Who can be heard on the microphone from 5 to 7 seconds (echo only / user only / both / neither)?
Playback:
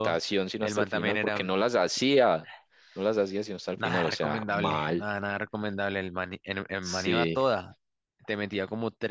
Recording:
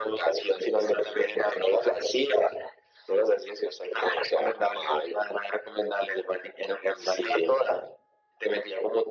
echo only